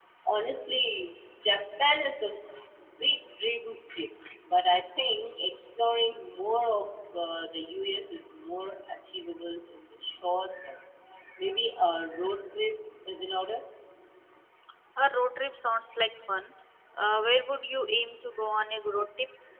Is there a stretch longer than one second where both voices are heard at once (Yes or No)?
No